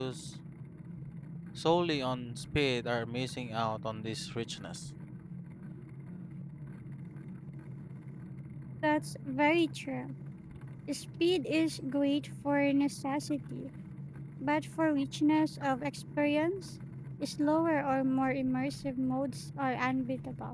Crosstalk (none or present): none